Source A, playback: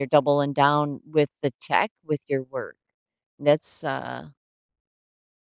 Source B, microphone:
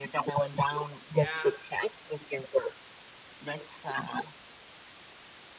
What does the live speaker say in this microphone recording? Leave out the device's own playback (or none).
Yeah,